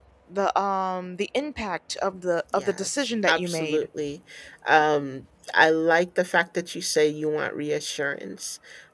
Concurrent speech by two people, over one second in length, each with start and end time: 2.5-3.9

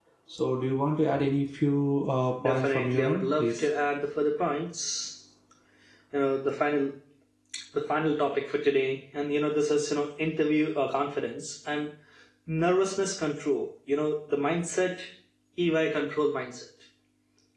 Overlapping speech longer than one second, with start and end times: 2.4-3.7

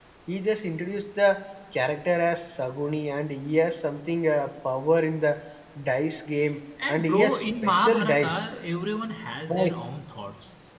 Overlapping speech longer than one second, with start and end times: 6.9-8.4

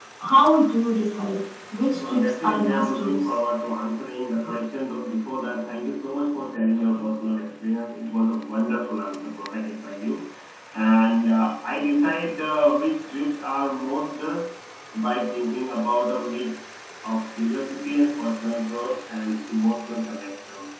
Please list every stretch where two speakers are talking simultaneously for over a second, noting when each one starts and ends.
1.9-3.4

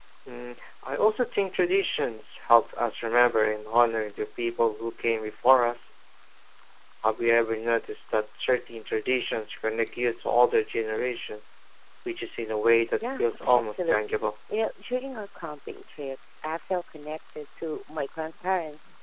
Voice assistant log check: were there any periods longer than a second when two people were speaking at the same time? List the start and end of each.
13.0-14.3

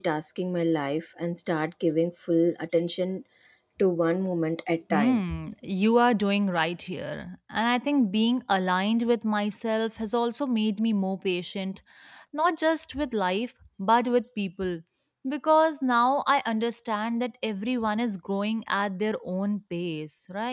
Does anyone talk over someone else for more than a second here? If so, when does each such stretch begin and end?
none

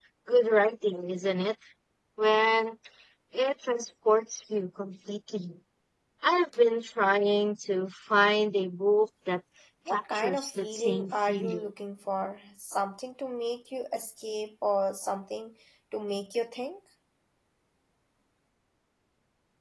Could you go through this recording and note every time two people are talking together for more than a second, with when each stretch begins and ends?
9.9-11.7

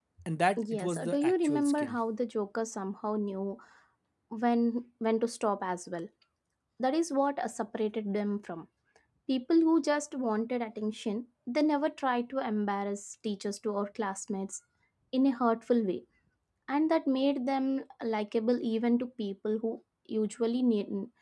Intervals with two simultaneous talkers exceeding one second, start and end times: 0.6-1.9

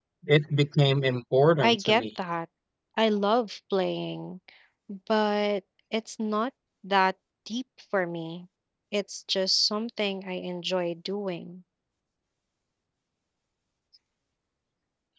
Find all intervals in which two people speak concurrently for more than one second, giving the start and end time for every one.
none

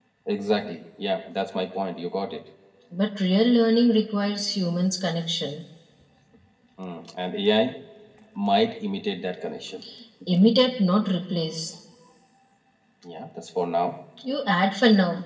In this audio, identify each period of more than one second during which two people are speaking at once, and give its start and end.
none

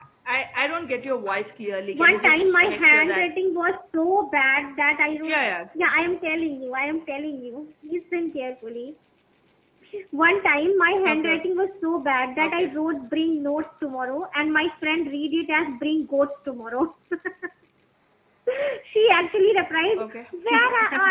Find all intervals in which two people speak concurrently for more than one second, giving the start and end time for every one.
1.9-3.3

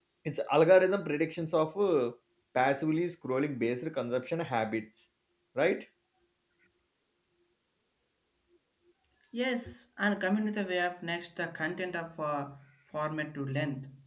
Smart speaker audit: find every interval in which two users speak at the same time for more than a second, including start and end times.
none

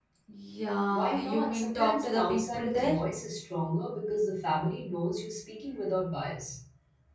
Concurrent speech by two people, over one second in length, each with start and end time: 0.9-2.9

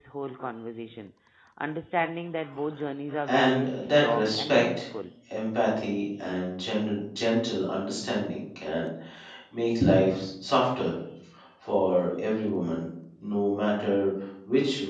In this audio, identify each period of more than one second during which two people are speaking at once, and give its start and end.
3.3-4.8

